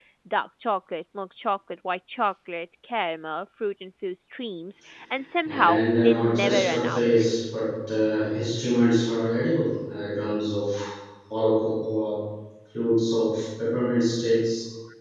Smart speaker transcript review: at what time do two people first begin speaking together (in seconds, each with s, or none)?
5.5 s